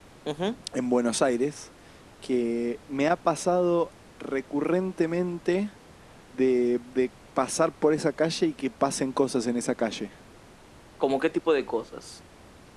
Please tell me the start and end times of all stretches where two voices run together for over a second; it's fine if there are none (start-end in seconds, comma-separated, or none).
none